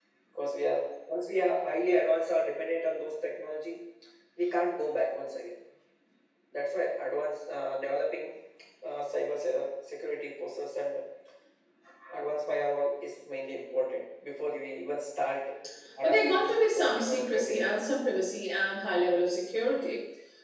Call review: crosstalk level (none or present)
present